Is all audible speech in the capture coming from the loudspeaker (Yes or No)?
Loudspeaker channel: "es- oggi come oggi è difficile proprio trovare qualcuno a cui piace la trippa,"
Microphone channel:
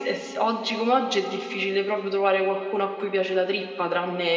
Yes